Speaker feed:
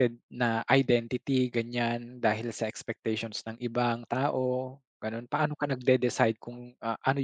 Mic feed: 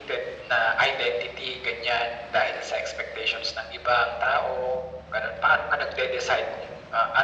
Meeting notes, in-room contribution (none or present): none